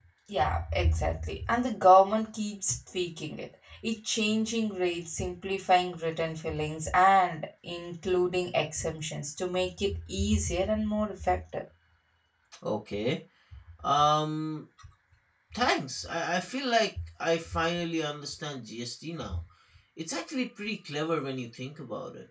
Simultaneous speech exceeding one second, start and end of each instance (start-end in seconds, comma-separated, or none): none